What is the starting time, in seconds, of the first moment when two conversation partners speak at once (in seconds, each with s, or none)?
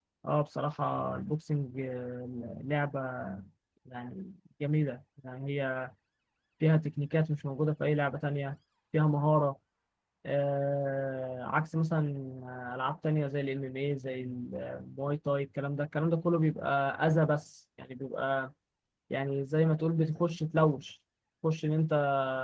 none